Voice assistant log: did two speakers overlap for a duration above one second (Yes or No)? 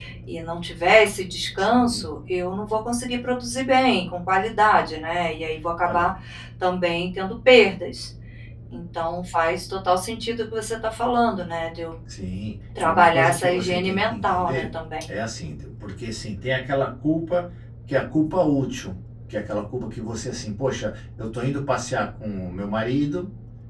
Yes